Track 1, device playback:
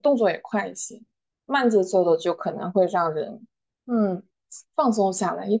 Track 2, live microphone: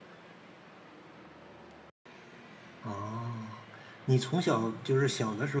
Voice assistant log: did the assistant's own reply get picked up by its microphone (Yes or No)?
No